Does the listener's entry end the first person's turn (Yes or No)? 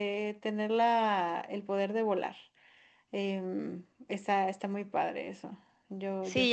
Yes